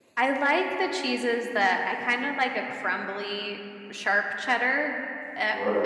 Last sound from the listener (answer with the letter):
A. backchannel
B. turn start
A